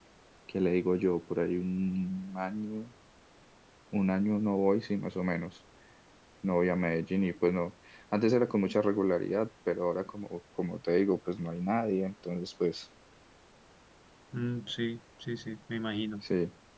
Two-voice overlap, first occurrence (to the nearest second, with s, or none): none